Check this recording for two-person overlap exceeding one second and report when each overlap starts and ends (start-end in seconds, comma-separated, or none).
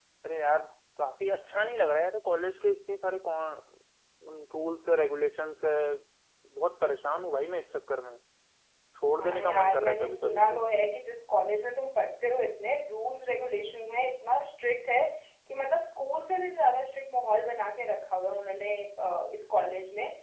9.2-10.6